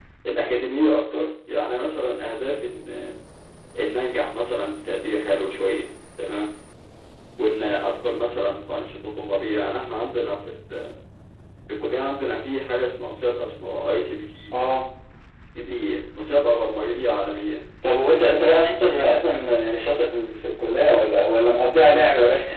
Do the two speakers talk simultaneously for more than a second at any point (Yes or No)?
No